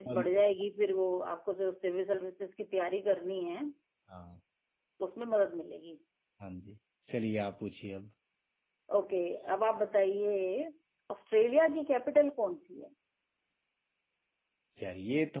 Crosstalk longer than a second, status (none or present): none